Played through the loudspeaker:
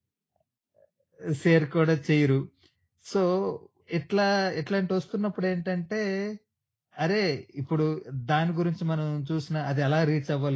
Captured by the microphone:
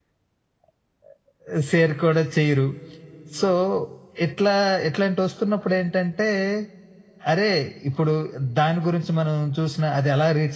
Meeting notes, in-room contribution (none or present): none